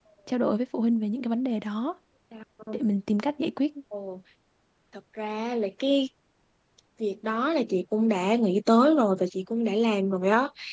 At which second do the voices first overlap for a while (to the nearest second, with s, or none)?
none